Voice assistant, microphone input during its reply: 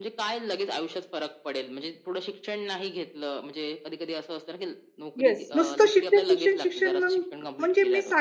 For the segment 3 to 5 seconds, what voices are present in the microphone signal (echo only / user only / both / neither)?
echo only